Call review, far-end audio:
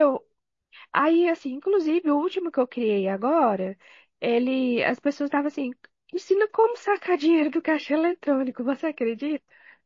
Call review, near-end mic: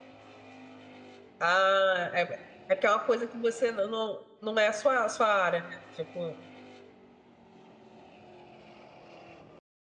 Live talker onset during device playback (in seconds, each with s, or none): 1.4 s